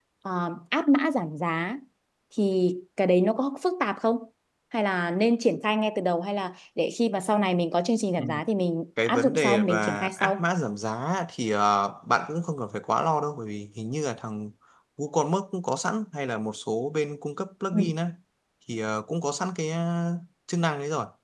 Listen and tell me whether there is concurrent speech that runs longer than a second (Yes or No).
Yes